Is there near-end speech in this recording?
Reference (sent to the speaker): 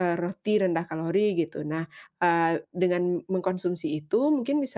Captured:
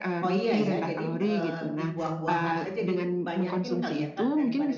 Yes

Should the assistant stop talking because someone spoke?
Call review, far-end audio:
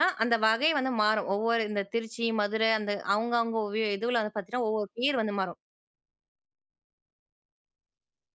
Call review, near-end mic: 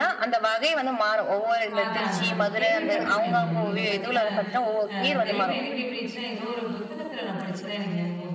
Yes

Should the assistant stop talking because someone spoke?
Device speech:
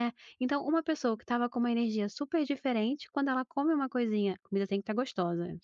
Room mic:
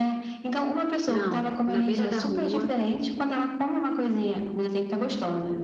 Yes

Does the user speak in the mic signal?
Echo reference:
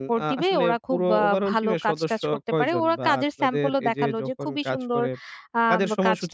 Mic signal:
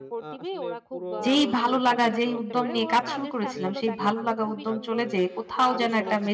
Yes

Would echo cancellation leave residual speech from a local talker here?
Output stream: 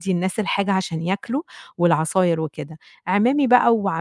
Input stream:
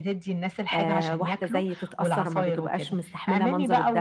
Yes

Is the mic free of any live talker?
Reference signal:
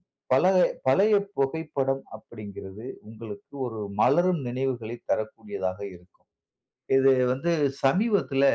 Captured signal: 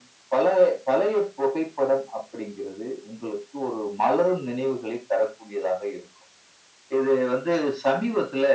Yes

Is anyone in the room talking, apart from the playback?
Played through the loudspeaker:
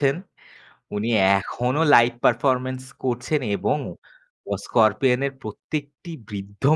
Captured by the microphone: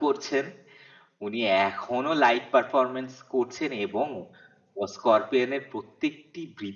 No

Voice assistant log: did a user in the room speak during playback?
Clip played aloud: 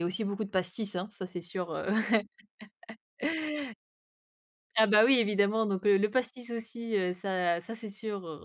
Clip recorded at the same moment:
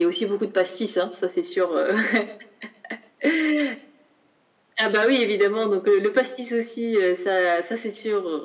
No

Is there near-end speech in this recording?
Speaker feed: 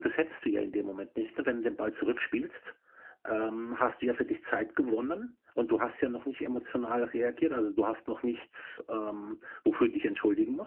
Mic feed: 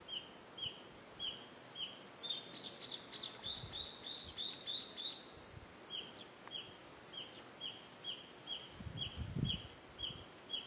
No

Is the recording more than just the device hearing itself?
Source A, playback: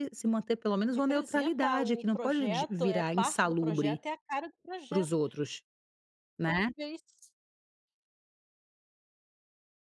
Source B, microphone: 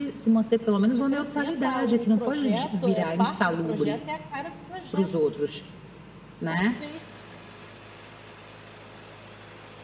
No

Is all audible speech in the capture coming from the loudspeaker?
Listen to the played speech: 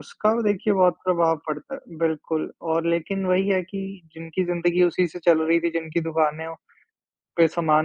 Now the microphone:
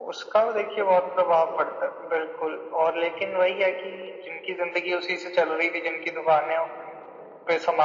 Yes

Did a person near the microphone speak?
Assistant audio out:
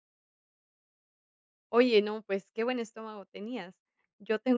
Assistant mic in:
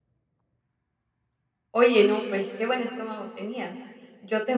No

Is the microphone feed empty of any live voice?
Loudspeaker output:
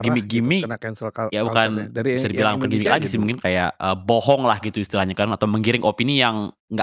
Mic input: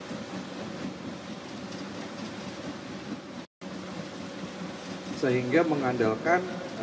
No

